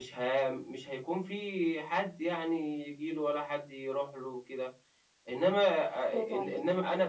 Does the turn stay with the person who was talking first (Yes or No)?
Yes